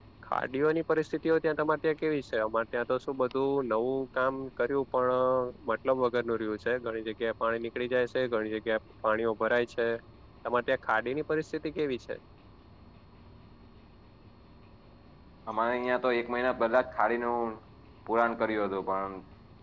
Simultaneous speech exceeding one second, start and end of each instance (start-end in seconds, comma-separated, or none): none